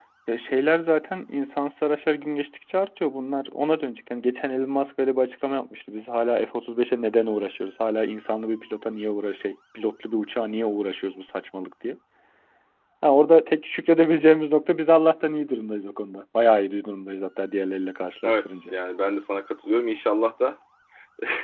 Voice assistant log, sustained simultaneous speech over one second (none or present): none